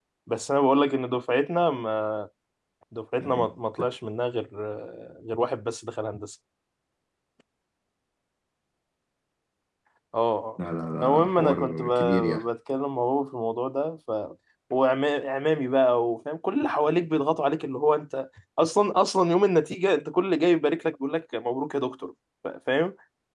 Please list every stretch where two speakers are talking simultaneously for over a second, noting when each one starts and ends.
11.1-12.4

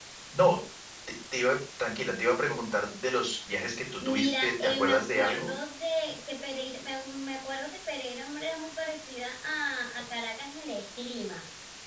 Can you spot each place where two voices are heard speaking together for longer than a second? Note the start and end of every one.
4.0-5.5

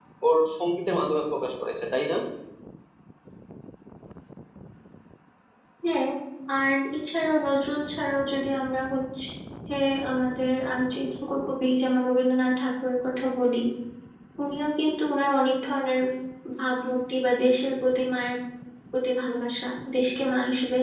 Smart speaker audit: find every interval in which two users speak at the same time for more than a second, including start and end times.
none

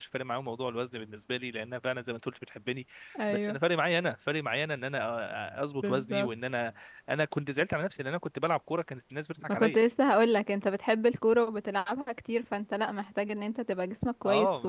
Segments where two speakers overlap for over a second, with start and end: none

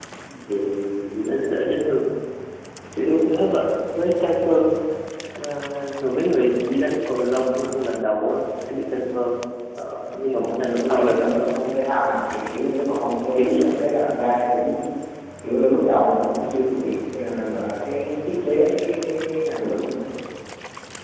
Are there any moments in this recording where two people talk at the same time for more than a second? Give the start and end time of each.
10.0-11.5

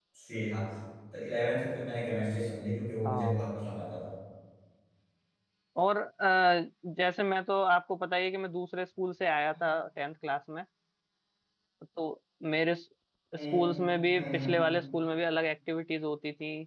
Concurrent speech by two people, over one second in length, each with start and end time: none

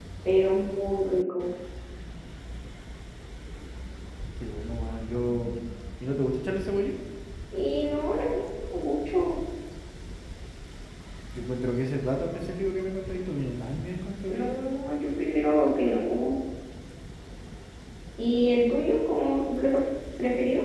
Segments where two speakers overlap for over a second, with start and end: none

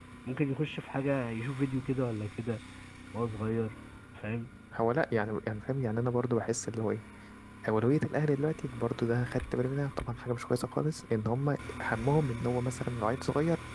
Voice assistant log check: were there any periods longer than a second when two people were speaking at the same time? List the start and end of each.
none

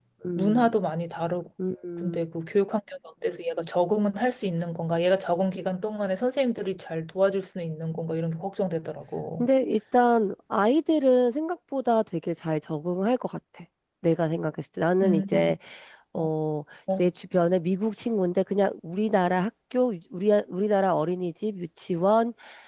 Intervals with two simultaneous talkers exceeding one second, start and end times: none

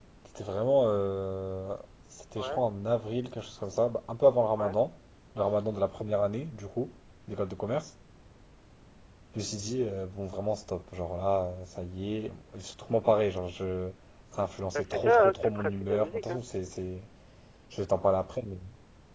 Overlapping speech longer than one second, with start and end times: 14.7-16.4

